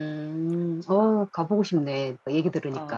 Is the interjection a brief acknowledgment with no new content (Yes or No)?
No